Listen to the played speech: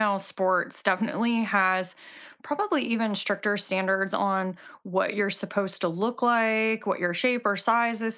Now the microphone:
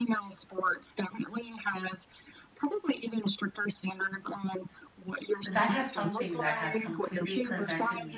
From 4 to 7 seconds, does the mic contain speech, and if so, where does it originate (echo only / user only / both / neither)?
both